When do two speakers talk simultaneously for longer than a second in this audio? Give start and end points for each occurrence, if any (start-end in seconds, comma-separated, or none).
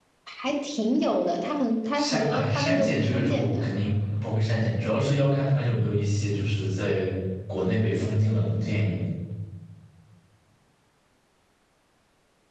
1.9-3.7